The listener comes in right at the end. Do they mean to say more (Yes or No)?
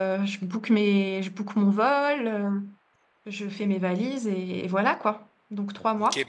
Yes